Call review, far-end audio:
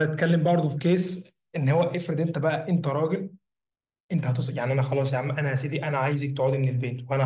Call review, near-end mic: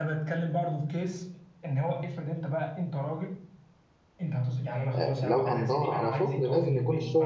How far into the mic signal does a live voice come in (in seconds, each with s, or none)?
5.0 s